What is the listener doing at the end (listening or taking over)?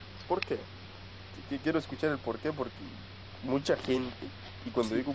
listening